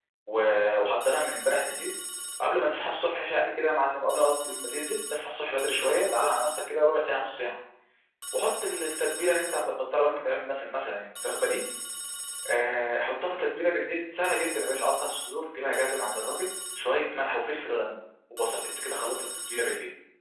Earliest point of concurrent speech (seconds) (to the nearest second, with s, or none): none